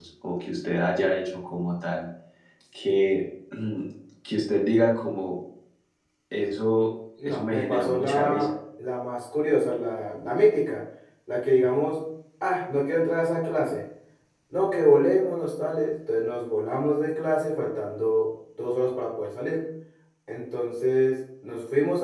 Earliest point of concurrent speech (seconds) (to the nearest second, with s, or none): 7 s